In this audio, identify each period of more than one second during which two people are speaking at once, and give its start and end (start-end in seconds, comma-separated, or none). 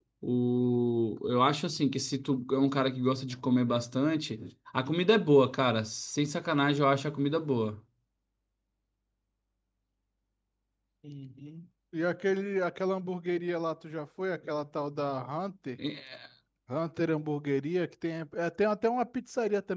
none